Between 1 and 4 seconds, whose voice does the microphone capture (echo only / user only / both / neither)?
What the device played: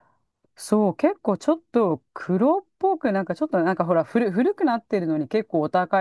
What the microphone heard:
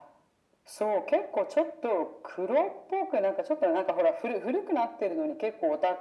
echo only